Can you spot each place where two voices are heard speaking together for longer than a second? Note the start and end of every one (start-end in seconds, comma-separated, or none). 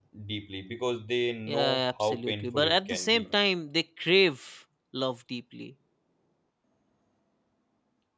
1.5-3.3